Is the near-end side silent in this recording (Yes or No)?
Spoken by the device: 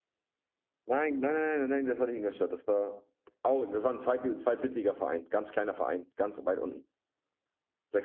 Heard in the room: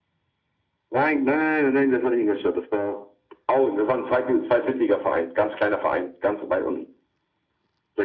Yes